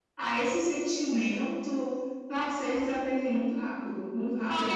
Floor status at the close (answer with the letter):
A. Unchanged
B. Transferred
B